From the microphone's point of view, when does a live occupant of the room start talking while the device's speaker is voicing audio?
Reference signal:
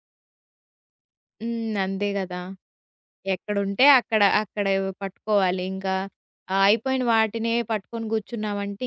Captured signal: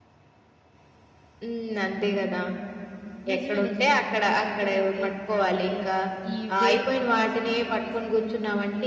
3.3 s

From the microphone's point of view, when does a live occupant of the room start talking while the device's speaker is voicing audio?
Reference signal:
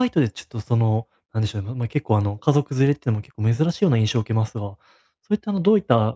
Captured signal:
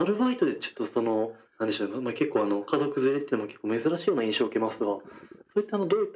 none

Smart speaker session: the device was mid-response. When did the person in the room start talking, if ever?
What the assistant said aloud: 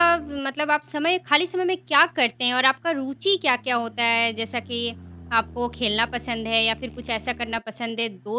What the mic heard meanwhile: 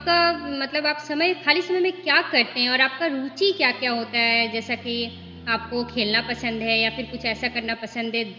none

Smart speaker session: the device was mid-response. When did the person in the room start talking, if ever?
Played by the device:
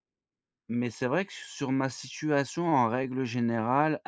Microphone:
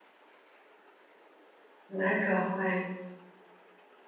1.9 s

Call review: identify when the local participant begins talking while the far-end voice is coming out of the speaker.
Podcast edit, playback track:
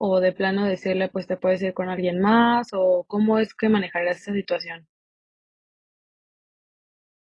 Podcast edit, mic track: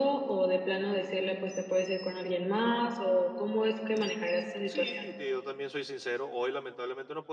4.6 s

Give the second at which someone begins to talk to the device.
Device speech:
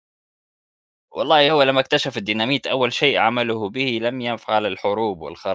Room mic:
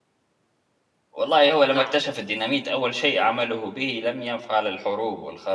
1.7 s

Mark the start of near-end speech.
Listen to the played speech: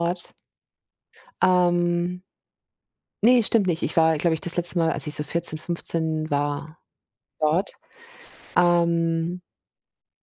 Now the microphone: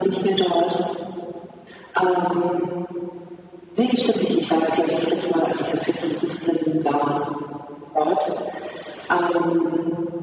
none

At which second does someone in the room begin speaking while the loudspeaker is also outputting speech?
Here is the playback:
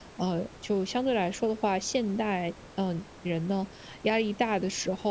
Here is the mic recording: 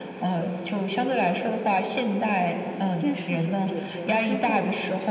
2.3 s

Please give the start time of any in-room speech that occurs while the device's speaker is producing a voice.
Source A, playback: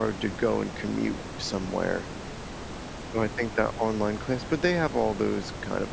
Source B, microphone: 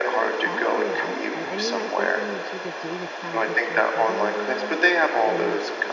0.4 s

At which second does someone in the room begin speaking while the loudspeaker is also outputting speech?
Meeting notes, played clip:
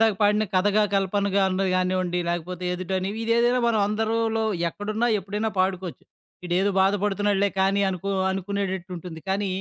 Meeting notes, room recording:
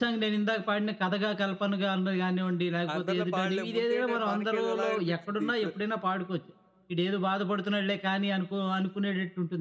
2.9 s

